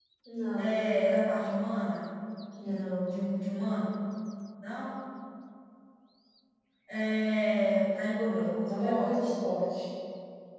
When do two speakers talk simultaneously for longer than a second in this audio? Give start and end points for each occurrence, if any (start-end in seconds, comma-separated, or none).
8.2-9.4